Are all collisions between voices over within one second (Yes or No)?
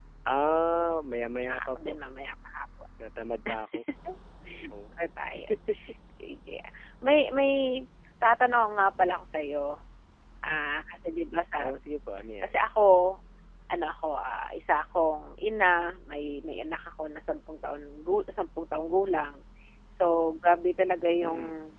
Yes